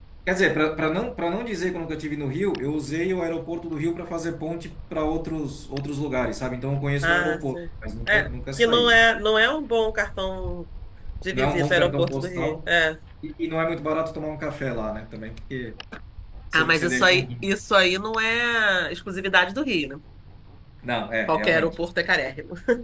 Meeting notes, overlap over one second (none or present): present